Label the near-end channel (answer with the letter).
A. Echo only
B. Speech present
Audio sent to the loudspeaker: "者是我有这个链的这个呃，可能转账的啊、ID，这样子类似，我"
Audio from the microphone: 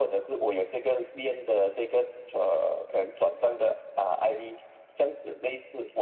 A